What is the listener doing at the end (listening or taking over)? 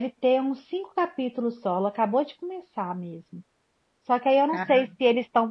listening